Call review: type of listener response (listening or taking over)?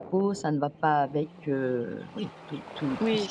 taking over